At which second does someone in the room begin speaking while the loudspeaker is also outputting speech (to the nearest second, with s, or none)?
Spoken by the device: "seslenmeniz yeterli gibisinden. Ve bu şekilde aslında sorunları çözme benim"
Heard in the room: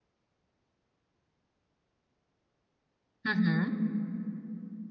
3 s